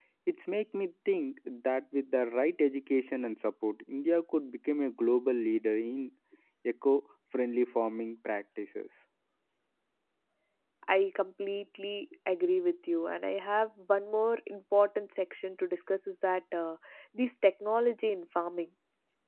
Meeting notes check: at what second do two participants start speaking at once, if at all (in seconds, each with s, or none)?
none